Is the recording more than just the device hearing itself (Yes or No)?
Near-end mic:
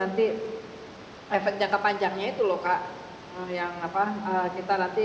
No